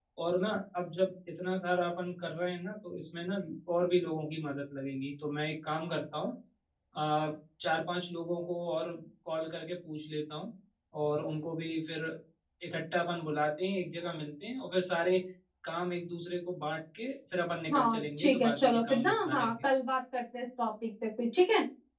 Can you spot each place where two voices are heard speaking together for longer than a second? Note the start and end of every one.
17.7-19.6

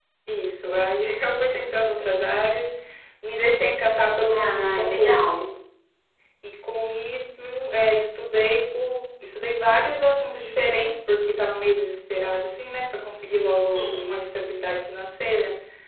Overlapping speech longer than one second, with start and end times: 4.3-5.6

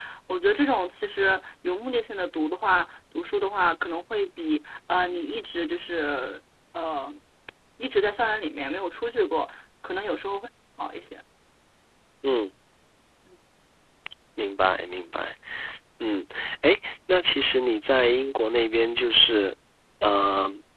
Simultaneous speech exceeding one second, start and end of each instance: none

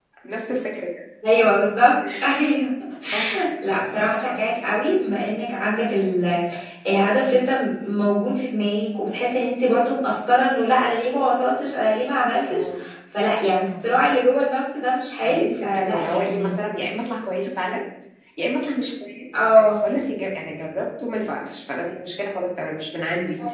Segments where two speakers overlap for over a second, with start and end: 15.2-16.5

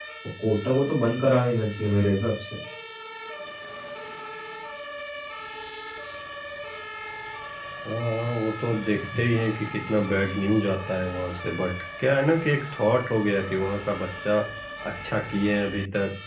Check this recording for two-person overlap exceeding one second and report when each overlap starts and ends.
none

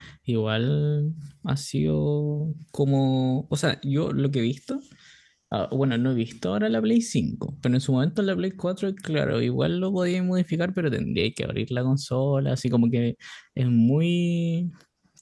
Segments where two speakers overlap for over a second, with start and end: none

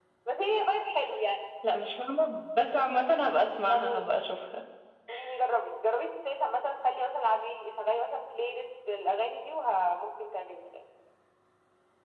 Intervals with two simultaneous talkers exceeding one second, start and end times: none

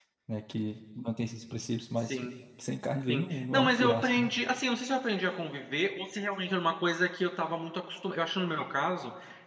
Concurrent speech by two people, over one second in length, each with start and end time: 3.1-4.3

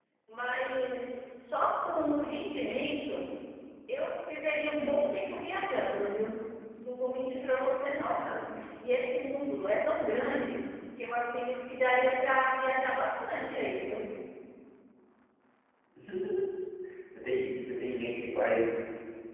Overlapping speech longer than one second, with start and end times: none

